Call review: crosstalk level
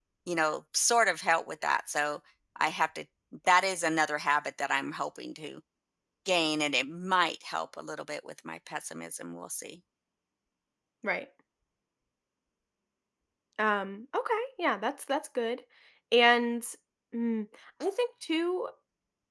none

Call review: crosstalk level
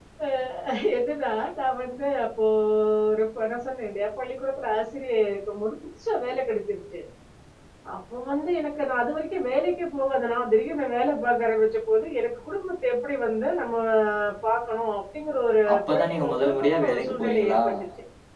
present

